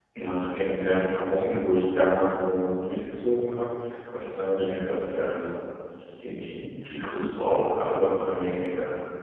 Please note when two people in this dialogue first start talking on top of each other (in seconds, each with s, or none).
none